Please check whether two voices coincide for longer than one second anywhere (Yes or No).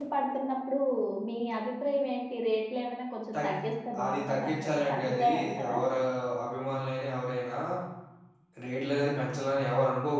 Yes